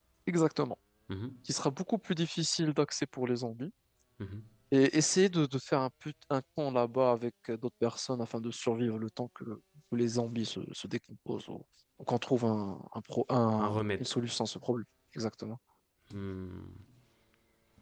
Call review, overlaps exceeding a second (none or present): none